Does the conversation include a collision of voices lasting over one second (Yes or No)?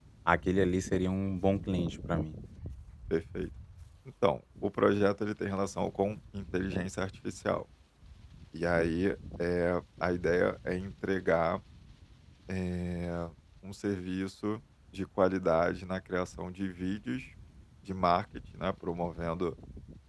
No